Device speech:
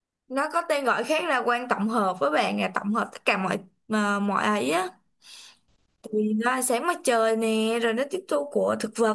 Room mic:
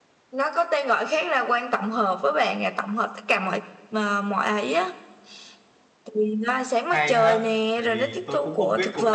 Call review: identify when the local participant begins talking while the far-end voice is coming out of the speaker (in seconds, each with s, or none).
6.9 s